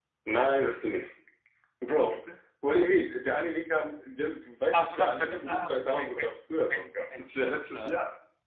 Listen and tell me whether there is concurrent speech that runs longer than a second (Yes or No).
Yes